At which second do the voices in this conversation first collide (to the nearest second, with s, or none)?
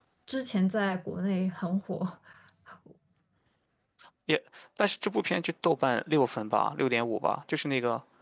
none